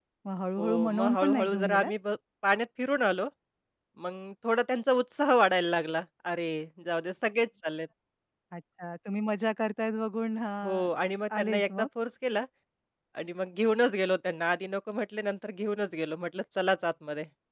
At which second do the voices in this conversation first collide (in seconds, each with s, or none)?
0.6 s